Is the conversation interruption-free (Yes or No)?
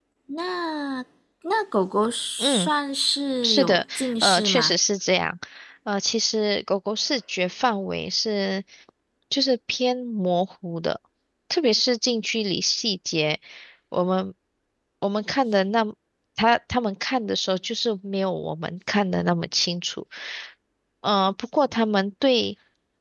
No